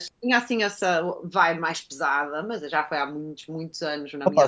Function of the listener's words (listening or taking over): taking over